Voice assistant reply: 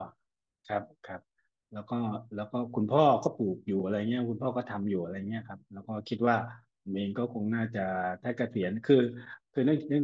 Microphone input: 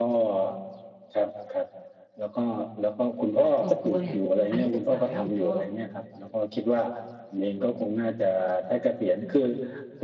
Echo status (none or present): present